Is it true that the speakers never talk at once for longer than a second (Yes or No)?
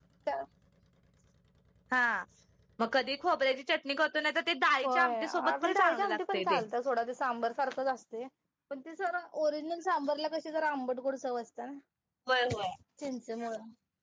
No